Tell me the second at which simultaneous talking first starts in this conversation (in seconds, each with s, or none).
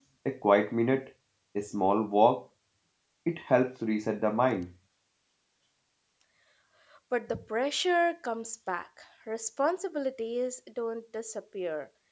none